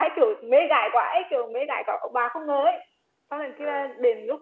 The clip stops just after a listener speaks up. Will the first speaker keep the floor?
Yes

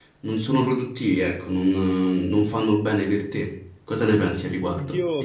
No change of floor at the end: No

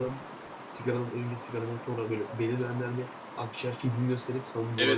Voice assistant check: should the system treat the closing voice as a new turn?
Yes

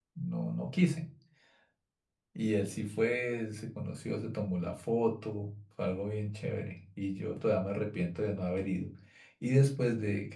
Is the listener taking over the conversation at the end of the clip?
No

